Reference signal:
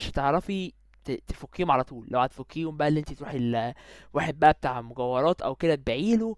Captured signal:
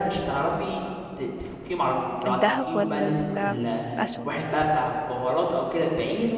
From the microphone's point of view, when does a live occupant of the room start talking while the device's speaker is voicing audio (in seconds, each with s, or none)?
2.2 s